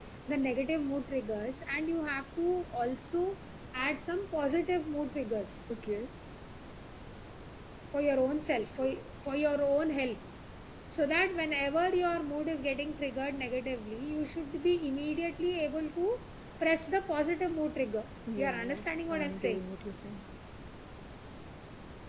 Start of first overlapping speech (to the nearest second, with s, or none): 18 s